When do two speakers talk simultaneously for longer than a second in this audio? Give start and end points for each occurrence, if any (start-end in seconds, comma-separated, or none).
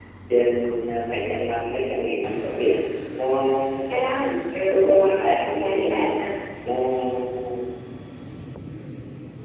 4.7-6.1